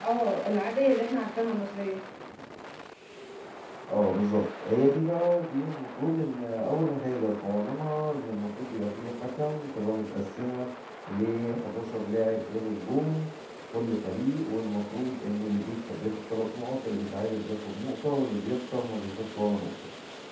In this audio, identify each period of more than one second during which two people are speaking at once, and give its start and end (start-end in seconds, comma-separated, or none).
none